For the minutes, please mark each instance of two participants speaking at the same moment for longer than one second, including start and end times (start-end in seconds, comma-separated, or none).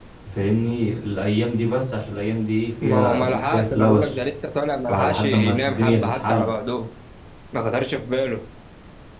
2.8-4.2, 4.9-6.5